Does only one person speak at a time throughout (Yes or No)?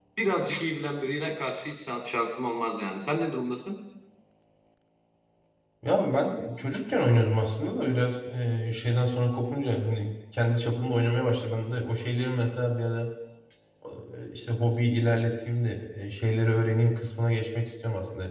Yes